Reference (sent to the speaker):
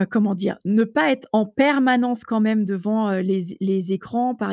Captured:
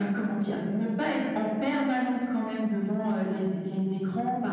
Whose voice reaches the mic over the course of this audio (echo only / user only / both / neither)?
echo only